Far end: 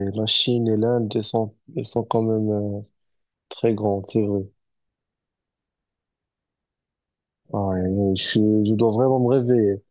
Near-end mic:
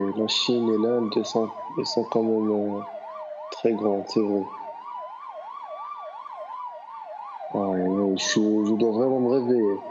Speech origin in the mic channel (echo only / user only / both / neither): echo only